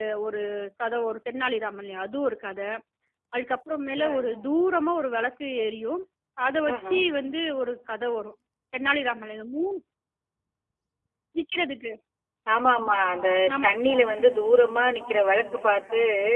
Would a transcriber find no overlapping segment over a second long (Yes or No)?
Yes